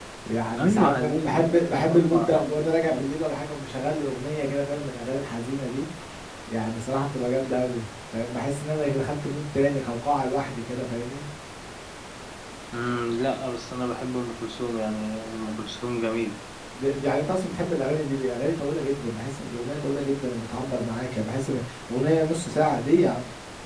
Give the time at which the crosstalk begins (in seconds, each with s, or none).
0.6 s